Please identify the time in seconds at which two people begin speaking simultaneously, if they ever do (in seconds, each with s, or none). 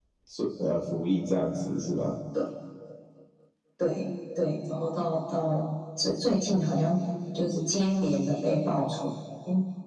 none